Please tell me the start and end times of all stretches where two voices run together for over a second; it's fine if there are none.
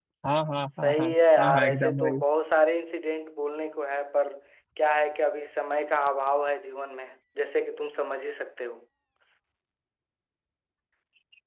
0.8-2.2

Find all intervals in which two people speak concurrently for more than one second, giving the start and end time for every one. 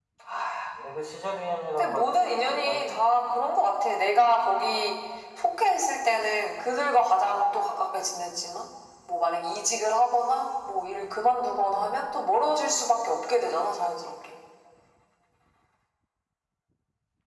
1.7-3.1

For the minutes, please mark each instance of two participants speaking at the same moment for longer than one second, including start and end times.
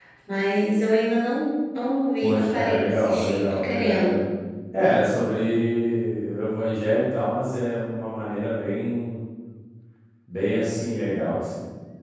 2.2-4.2

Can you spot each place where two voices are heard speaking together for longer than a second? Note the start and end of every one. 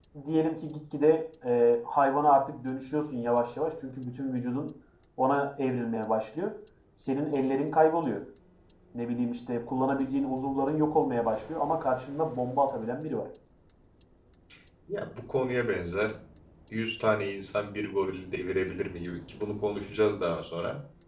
none

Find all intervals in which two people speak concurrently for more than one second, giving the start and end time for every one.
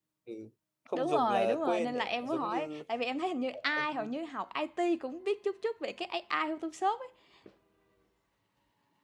0.9-2.8

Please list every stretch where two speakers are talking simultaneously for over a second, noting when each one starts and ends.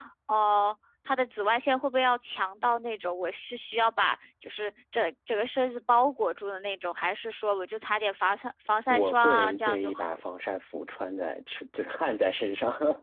8.9-10.2

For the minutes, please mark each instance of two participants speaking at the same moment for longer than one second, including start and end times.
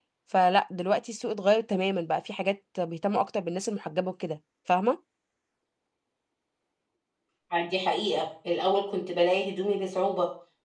none

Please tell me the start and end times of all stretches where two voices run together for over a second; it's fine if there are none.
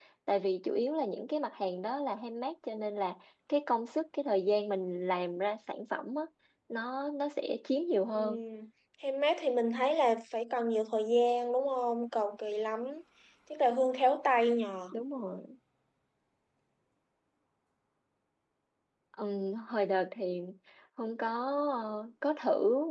none

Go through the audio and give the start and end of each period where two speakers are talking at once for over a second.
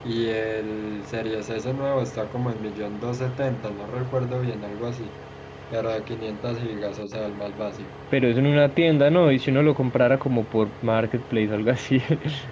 none

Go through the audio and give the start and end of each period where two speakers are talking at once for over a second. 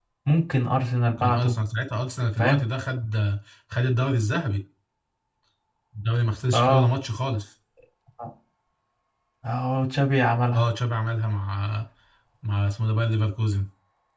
none

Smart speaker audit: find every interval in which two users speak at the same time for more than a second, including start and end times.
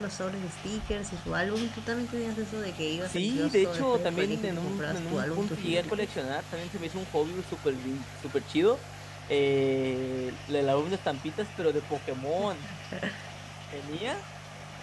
3.1-6.2

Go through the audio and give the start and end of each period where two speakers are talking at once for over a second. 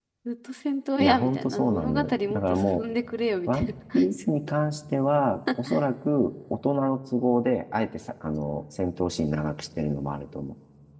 1.0-2.8

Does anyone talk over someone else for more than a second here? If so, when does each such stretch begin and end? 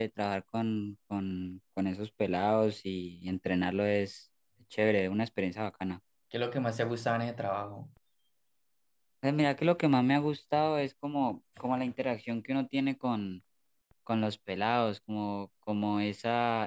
none

